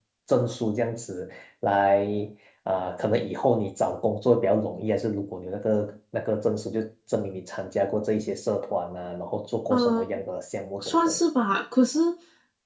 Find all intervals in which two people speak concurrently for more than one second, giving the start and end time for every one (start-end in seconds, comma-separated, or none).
none